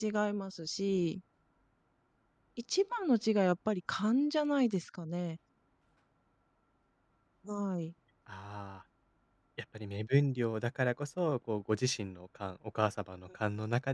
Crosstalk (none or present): none